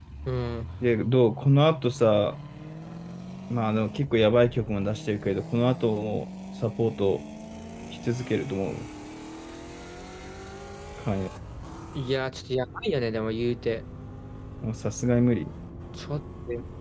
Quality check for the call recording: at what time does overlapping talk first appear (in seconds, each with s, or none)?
none